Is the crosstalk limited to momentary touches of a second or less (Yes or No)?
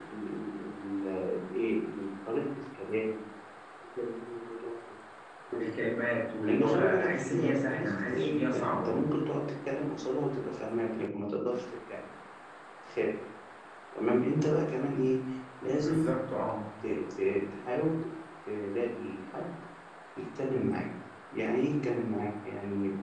No